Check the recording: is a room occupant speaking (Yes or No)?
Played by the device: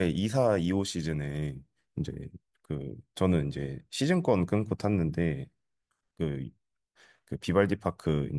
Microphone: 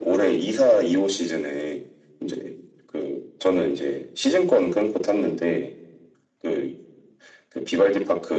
No